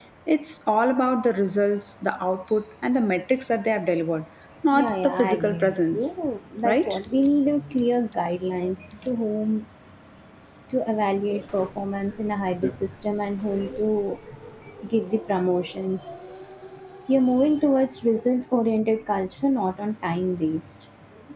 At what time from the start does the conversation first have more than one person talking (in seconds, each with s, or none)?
4.7 s